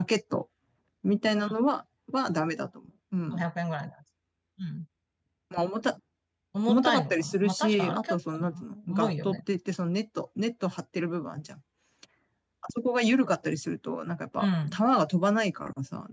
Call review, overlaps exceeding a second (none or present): present